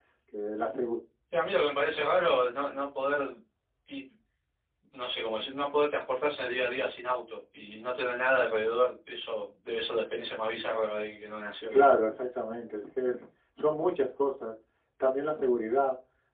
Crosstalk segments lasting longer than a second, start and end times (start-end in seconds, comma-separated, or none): none